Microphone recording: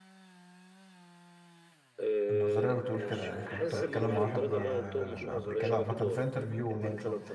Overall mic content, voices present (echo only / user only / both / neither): both